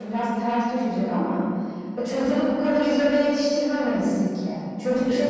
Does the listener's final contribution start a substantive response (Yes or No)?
No